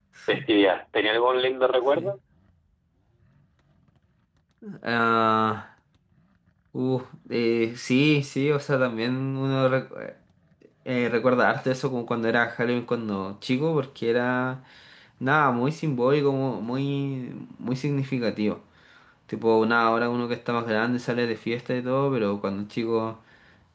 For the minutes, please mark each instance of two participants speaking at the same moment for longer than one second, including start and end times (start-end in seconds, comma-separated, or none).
none